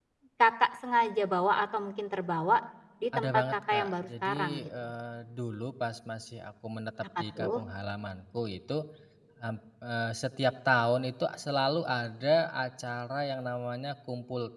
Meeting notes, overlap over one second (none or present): present